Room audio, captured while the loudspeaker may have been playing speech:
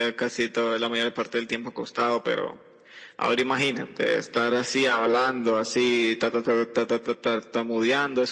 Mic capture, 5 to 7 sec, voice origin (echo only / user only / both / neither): echo only